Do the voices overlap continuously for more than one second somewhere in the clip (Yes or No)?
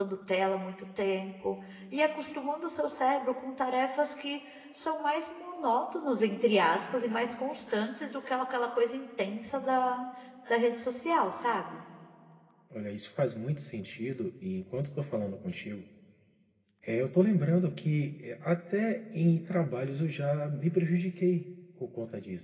No